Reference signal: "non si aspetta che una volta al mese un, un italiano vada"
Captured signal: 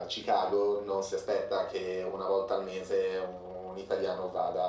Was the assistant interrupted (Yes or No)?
No